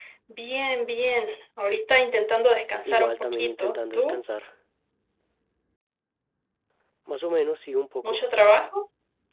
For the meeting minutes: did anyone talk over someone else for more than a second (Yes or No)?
Yes